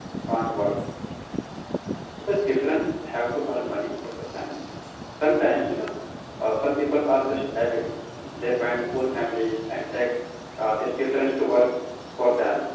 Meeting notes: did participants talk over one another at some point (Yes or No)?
No